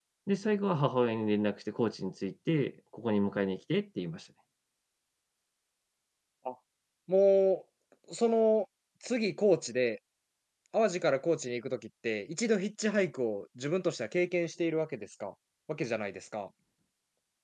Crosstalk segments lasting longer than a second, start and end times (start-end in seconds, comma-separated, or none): none